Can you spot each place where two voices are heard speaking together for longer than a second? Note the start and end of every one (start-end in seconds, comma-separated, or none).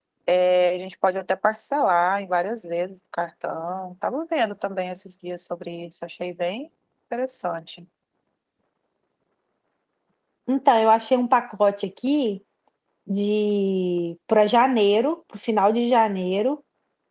none